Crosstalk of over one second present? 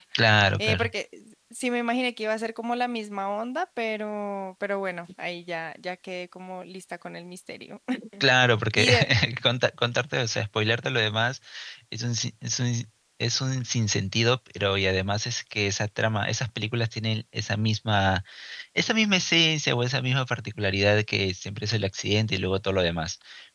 No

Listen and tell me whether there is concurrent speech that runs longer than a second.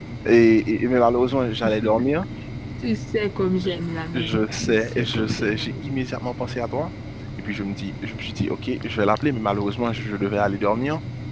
Yes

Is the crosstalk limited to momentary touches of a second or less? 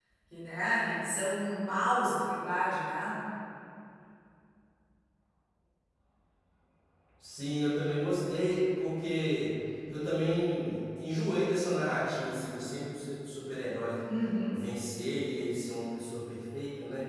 Yes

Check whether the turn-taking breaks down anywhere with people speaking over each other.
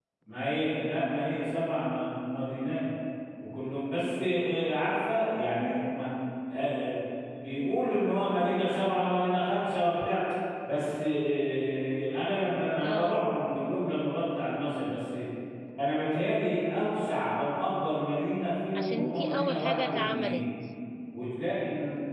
Yes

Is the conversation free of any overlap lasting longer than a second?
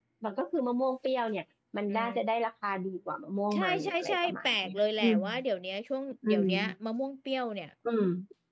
No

